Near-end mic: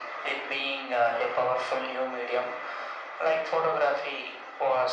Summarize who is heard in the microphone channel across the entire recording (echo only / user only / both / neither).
echo only